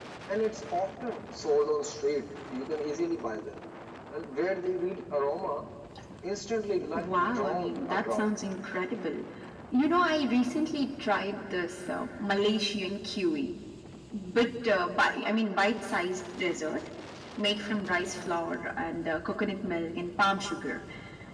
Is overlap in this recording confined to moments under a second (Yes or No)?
No